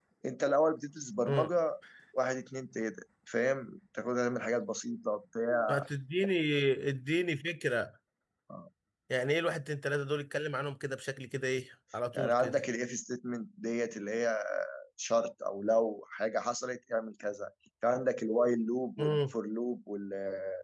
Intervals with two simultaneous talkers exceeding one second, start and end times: none

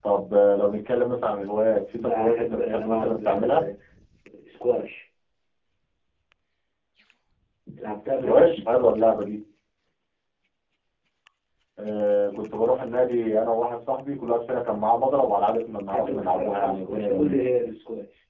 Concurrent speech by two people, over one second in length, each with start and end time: 1.9-3.6, 15.9-17.4

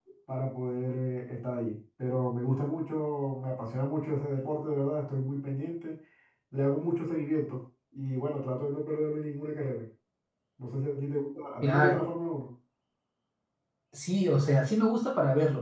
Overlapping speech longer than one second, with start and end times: none

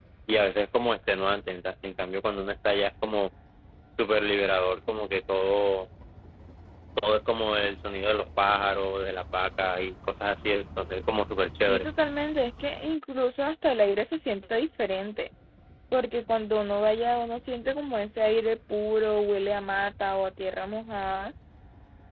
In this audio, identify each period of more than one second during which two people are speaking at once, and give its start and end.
none

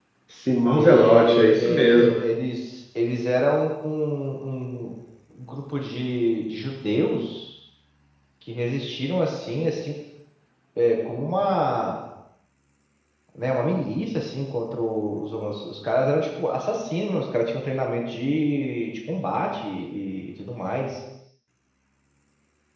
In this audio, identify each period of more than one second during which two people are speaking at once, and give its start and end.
0.7-2.2

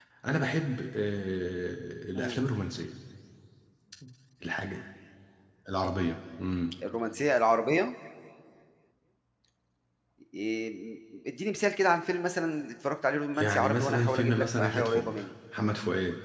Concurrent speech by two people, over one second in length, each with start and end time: 13.4-15.2

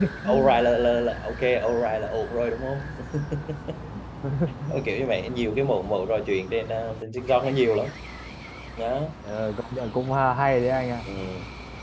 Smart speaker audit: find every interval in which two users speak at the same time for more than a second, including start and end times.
none

